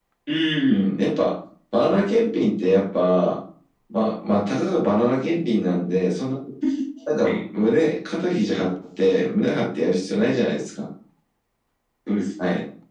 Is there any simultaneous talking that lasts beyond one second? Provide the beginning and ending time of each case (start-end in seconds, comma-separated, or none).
none